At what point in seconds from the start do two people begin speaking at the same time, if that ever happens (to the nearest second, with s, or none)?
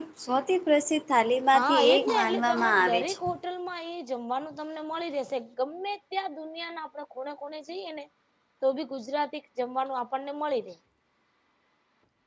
2 s